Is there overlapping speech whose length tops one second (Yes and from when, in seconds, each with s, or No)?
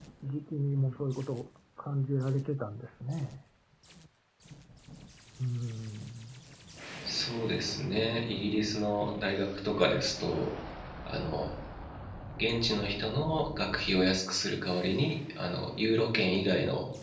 No